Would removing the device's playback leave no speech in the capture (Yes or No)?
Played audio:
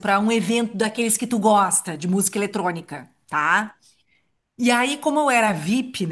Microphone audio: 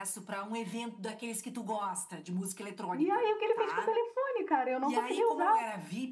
No